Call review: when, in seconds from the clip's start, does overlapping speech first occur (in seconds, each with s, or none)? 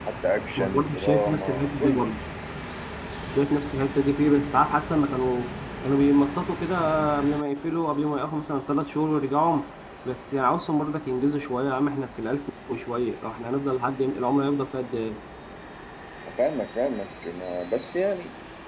0.6 s